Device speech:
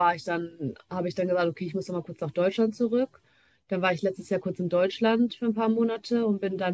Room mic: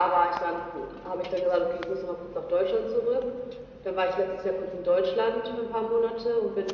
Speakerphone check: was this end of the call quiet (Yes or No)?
Yes